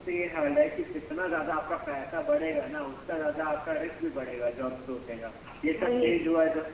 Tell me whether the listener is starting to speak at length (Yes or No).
No